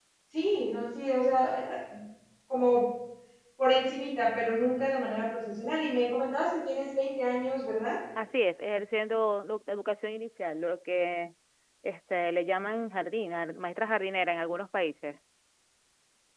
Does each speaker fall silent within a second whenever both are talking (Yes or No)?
Yes